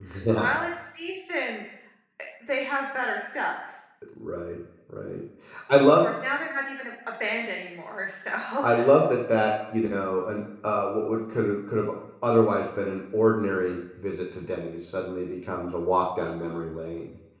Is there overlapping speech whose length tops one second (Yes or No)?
No